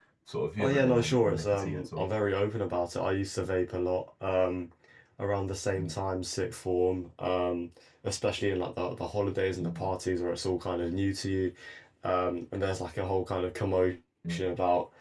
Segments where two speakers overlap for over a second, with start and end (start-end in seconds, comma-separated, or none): 0.6-2.1